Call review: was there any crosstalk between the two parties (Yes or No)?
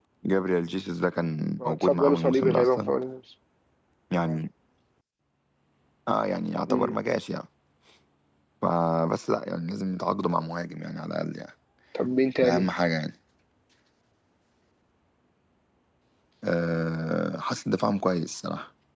Yes